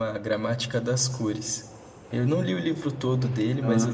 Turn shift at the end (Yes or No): No